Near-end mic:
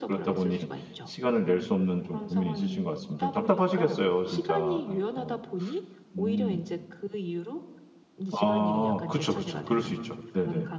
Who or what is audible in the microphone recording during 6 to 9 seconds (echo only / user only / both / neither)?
both